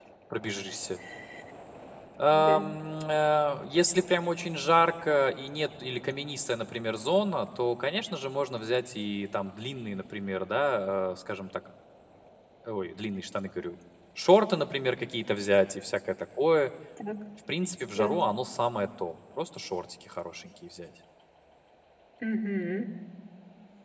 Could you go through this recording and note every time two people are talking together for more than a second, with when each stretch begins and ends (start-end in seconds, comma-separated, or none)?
none